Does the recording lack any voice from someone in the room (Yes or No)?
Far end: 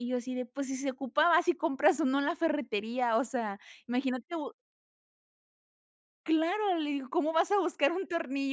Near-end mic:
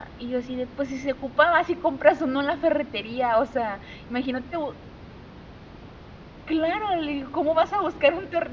Yes